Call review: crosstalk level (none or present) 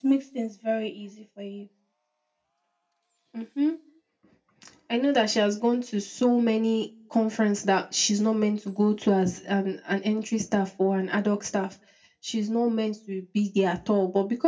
none